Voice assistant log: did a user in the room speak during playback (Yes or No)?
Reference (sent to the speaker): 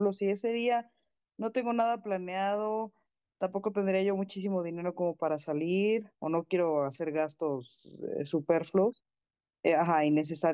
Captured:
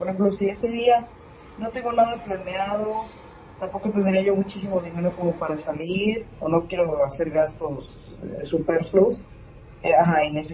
No